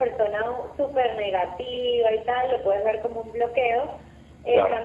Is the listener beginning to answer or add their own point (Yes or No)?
No